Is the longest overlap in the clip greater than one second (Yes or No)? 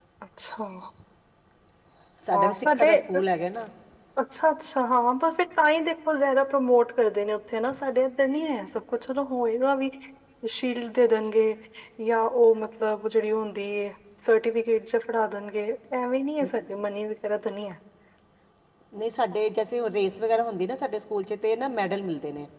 Yes